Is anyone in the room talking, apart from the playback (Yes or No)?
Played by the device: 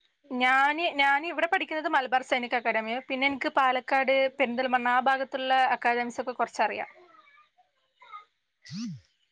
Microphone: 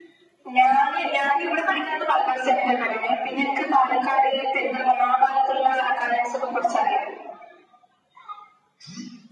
No